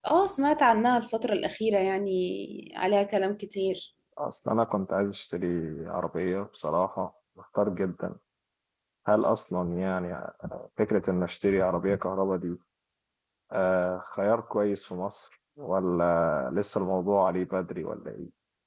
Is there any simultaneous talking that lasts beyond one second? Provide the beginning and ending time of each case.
none

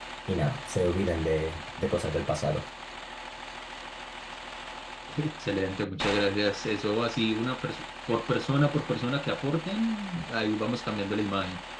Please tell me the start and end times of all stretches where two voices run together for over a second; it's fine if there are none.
none

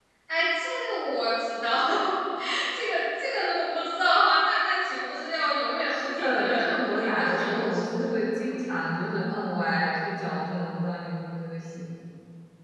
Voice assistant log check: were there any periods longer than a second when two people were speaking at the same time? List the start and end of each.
5.9-7.8

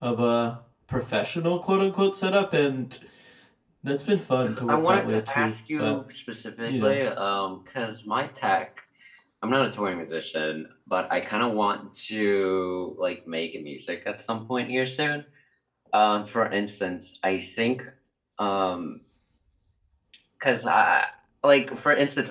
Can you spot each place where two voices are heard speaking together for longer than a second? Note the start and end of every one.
4.4-6.0

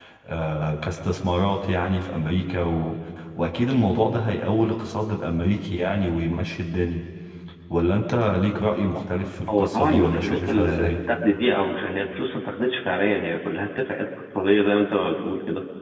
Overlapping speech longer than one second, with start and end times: 9.5-11.0

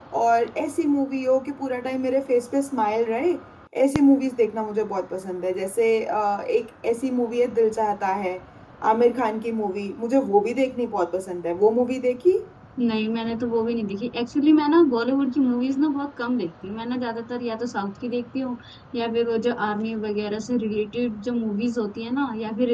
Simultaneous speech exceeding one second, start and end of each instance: none

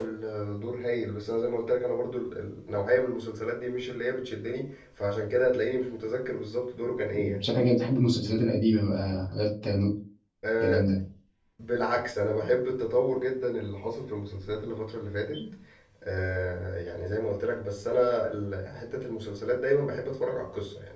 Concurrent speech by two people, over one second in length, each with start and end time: none

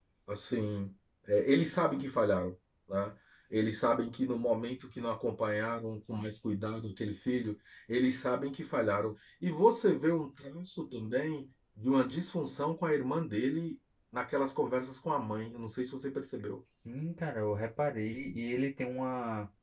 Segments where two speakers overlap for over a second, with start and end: none

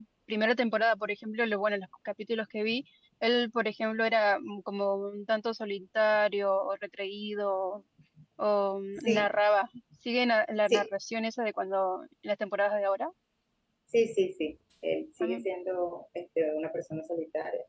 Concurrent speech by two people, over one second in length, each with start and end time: none

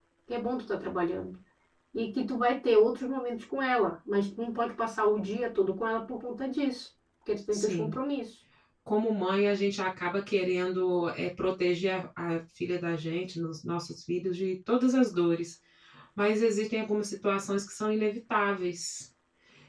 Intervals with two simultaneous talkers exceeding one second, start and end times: none

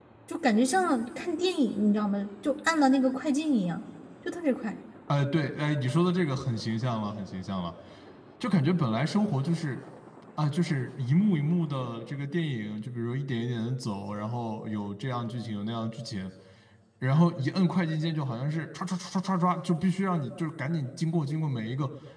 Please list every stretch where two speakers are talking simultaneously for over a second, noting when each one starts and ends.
none

